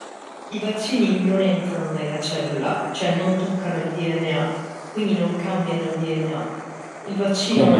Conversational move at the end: taking over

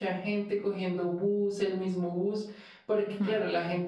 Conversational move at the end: listening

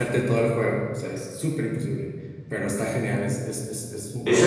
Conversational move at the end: taking over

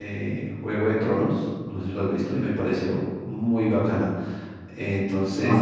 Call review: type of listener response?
listening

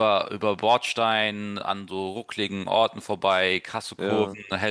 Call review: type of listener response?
listening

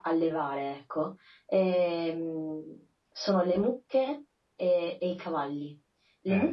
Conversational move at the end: listening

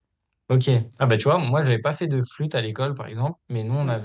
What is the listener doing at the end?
listening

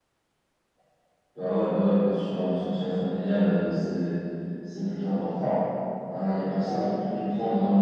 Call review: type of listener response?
listening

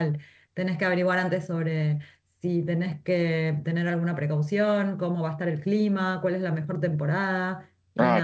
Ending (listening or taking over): taking over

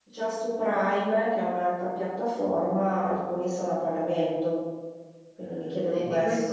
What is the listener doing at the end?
taking over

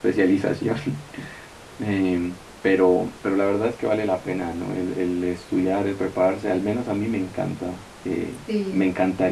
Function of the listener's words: listening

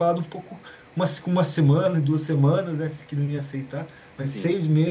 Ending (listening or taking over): listening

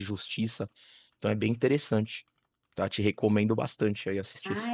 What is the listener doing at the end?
taking over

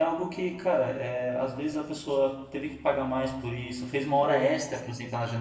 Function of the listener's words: listening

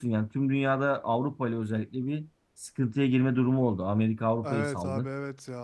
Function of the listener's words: taking over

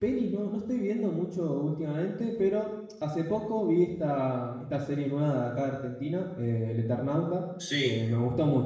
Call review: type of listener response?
listening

